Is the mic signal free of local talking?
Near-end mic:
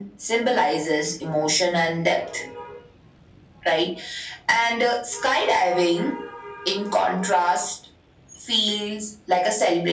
Yes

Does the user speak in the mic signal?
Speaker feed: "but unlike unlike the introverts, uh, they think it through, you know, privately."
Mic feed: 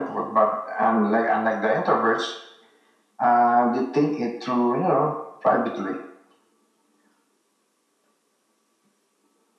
No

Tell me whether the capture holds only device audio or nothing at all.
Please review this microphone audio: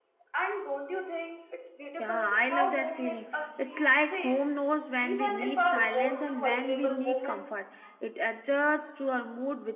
No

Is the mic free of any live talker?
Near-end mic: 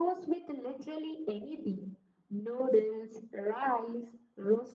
Yes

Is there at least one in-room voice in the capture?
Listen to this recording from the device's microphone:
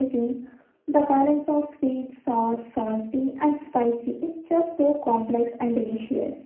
No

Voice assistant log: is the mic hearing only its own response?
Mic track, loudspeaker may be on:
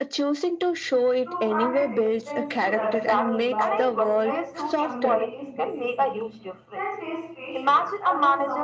No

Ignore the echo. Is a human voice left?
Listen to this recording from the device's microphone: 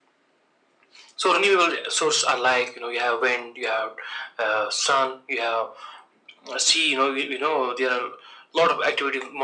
No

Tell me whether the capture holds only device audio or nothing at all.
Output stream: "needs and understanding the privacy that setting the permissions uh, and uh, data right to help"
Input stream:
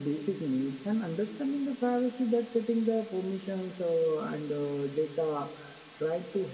Yes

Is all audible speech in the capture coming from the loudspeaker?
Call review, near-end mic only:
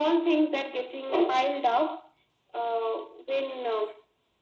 Yes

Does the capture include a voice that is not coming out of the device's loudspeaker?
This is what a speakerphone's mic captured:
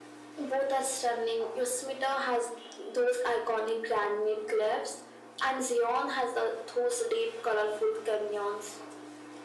No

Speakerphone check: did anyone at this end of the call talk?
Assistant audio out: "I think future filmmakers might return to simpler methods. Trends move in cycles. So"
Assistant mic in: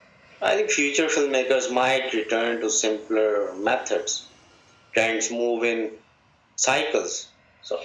No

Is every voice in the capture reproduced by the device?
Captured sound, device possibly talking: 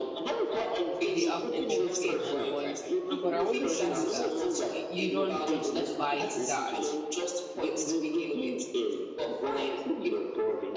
No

